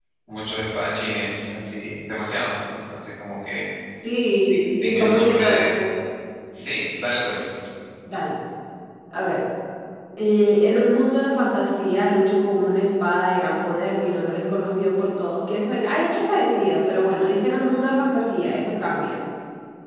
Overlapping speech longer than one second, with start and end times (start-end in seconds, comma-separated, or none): 4.3-5.8